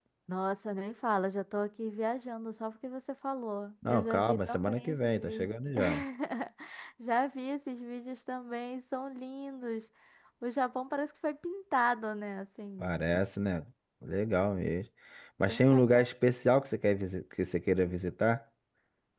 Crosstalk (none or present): present